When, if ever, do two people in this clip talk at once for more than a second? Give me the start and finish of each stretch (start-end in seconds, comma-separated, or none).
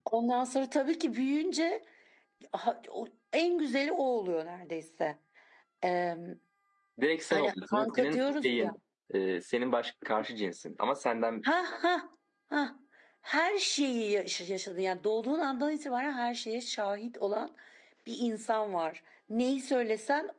7.3-8.7